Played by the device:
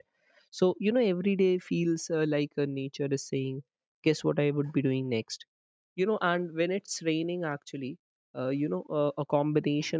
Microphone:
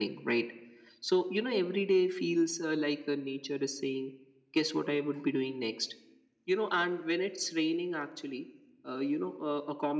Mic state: echo only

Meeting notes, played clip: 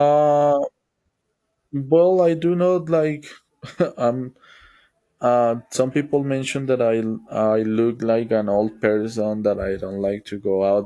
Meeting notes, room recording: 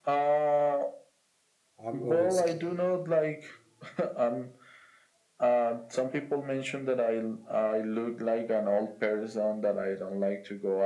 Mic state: both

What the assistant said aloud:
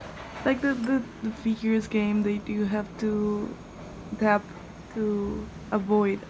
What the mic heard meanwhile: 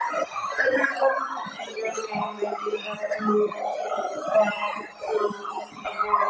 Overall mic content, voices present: echo only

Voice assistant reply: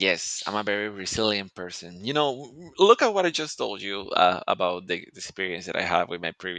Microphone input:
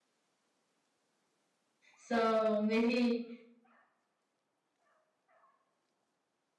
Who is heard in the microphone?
user only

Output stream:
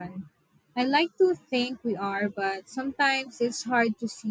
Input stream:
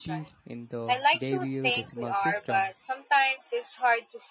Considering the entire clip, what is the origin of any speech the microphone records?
both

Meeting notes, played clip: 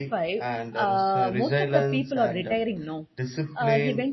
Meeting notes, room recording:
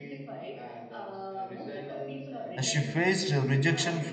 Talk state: both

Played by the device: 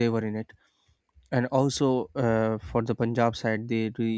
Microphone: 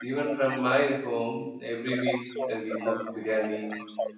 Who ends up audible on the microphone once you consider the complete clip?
both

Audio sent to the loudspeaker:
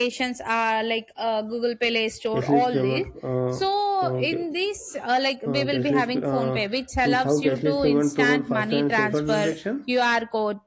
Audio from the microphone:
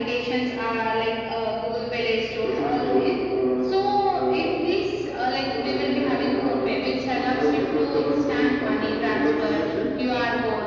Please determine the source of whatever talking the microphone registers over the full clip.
echo only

